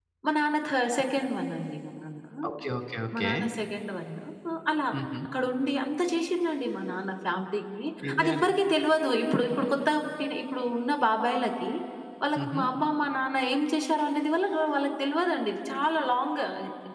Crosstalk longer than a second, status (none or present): none